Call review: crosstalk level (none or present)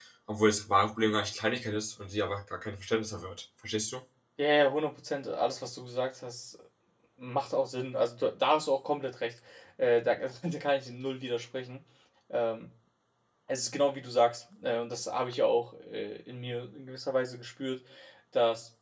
none